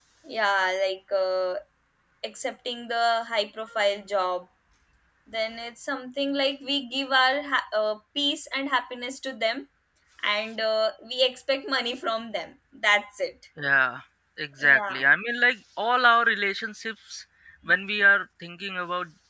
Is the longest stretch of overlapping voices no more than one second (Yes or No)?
Yes